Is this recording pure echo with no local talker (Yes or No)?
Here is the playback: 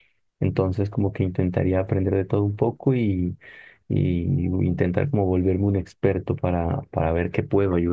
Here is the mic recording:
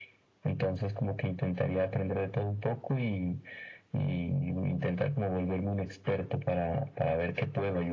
Yes